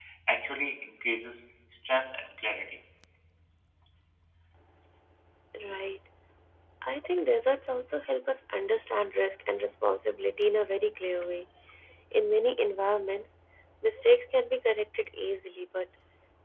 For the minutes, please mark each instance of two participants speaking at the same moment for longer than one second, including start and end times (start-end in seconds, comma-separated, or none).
none